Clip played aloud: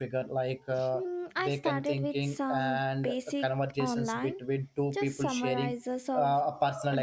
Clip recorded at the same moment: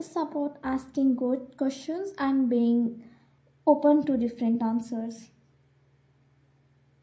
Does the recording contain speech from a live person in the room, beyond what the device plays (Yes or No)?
Yes